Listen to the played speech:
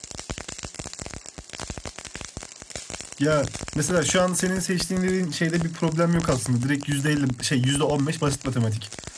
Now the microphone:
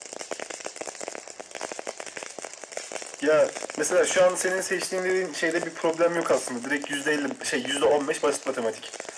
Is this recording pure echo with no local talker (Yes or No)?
Yes